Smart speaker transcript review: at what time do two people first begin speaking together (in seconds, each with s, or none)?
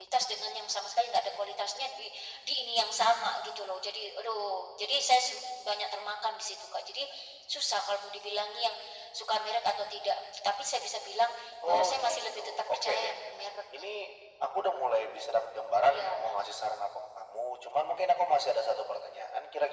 11.7 s